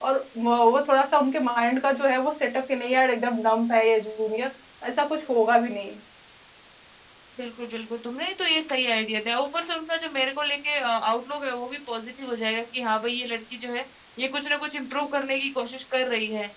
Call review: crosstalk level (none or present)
none